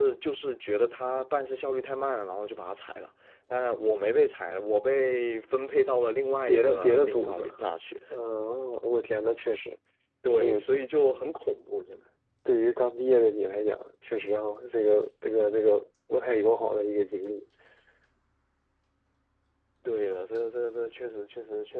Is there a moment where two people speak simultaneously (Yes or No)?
Yes